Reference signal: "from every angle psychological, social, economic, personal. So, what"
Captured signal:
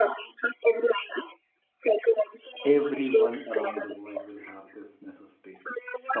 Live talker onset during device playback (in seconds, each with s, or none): 2.6 s